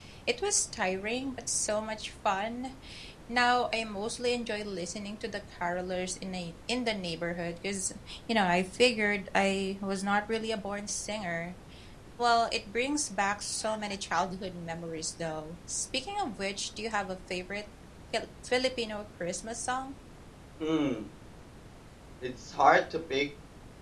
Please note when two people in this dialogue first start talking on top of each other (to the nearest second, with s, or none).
none